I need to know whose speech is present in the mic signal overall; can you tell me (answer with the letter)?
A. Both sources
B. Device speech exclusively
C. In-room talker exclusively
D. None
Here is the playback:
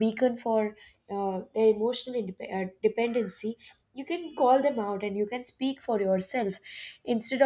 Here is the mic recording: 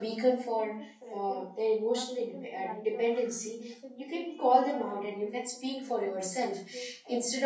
A